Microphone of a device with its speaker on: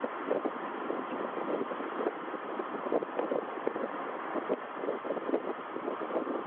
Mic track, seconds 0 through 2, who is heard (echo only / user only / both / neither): neither